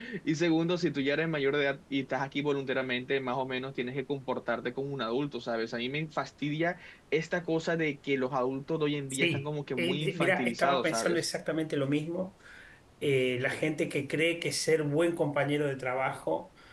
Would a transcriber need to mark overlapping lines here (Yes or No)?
Yes